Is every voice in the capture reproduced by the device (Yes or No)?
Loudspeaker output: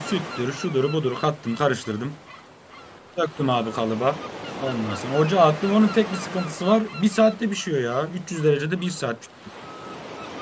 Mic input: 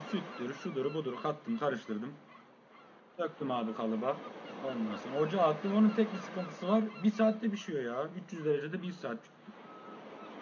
Yes